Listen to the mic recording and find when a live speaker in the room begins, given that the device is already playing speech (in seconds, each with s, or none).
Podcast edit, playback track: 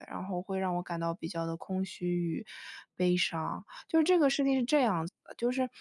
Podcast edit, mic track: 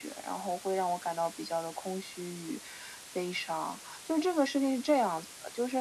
none